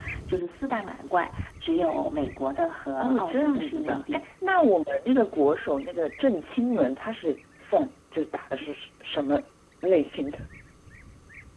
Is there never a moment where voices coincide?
No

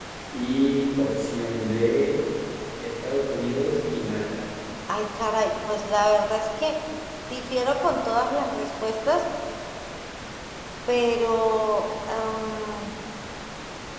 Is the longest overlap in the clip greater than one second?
No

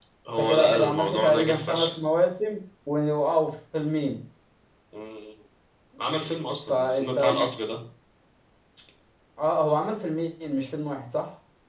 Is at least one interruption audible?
Yes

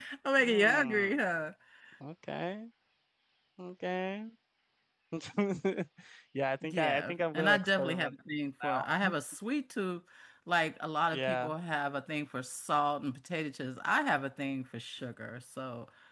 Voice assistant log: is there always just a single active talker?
No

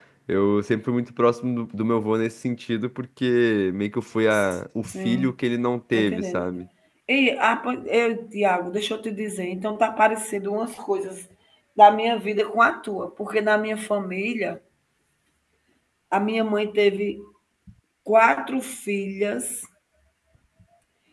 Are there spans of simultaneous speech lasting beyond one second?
No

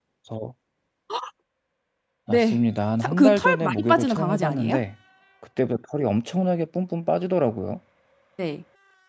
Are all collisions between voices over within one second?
No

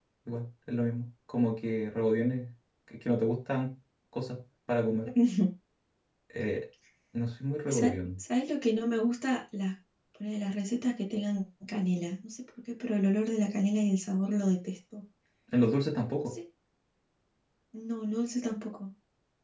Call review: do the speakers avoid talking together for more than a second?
Yes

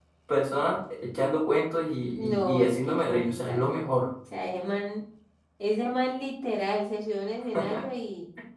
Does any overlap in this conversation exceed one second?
Yes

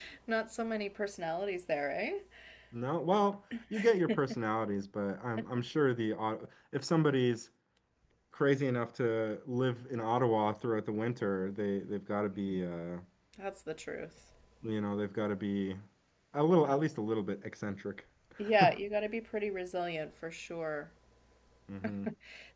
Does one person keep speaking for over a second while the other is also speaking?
No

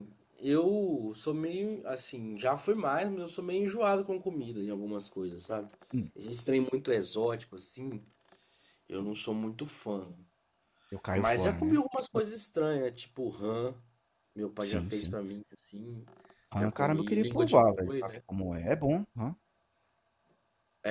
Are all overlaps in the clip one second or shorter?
No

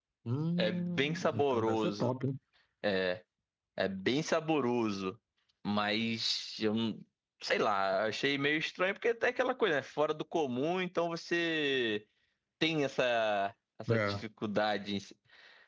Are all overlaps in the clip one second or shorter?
No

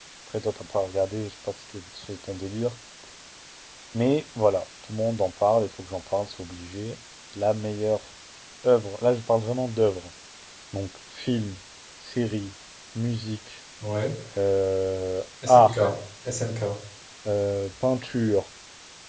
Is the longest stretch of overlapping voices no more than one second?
Yes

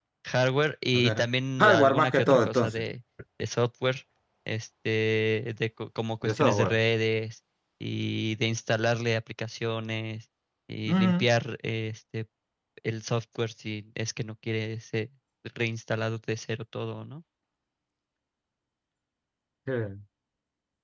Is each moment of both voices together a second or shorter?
No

